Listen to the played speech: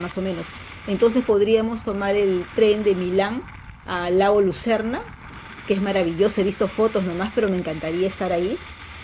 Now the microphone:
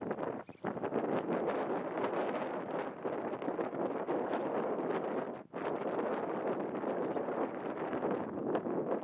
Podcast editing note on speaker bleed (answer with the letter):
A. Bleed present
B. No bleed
B